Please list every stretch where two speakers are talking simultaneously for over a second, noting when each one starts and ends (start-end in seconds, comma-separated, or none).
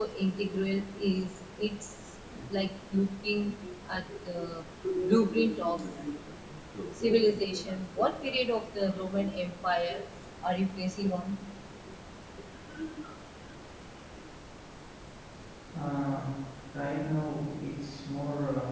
none